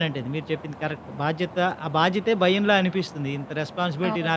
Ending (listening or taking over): listening